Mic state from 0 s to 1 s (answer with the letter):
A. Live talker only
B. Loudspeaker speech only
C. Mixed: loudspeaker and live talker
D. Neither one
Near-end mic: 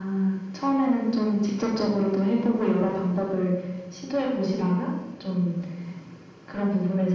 B